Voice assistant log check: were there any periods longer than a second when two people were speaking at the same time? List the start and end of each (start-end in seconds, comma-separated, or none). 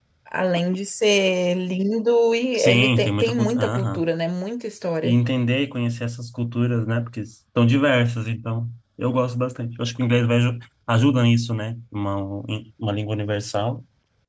2.5-4.0